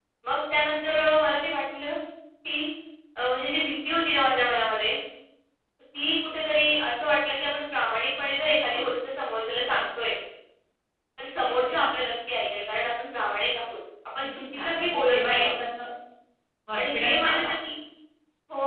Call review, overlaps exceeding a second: present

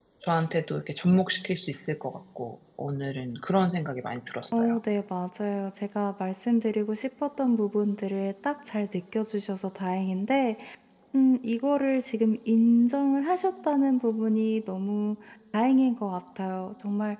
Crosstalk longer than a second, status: none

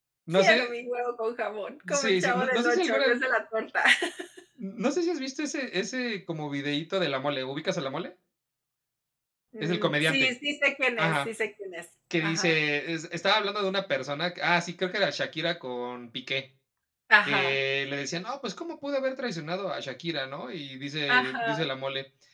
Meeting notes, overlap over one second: present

